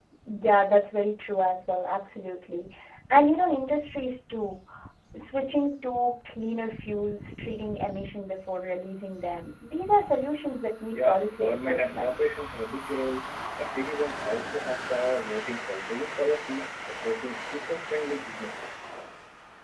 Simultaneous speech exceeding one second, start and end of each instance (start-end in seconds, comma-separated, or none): 10.9-12.2